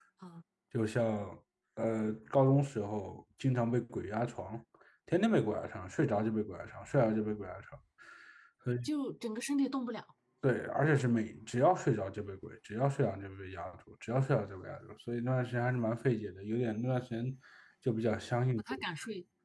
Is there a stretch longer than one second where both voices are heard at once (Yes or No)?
No